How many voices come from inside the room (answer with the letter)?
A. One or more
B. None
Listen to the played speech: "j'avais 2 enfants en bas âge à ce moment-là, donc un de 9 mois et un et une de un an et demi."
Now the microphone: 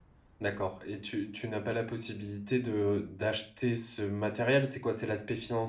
A